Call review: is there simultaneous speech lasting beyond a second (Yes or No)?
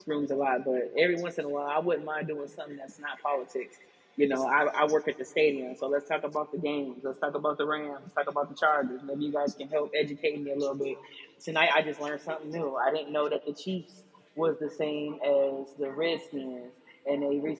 No